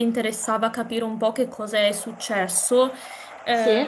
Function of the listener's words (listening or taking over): listening